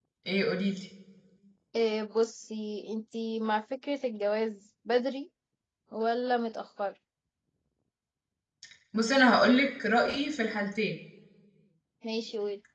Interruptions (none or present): none